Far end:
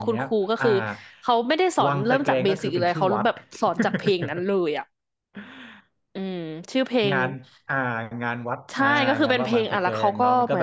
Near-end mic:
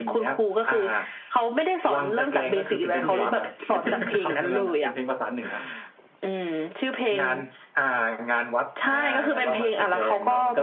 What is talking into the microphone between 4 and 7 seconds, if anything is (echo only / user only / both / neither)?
both